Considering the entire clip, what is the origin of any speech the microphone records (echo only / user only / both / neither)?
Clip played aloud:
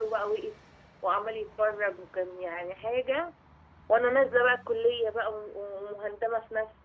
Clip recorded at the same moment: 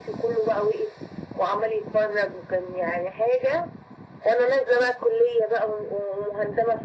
echo only